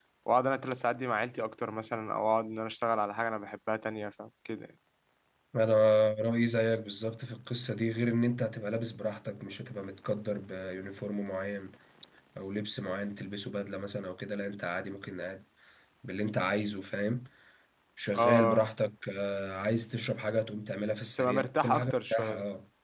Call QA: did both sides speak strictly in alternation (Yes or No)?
No